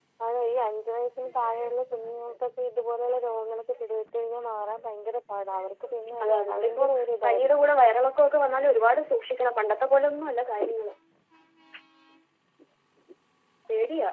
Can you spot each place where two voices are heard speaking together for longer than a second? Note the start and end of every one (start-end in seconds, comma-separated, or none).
6.2-7.7